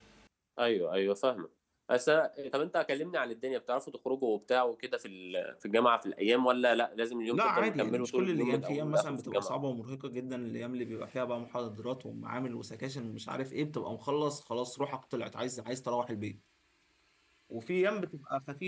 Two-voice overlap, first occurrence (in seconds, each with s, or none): 7.3 s